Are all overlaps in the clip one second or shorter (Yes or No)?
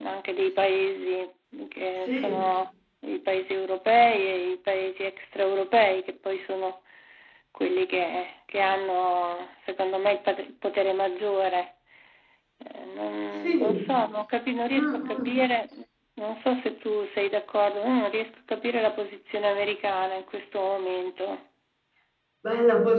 Yes